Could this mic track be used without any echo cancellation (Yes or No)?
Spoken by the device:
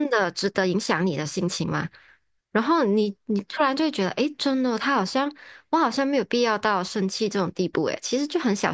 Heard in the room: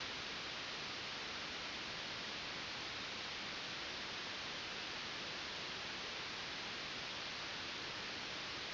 Yes